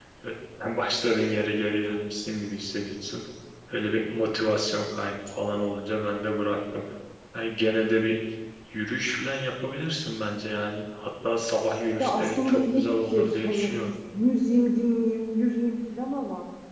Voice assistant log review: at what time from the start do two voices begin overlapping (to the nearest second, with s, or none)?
12 s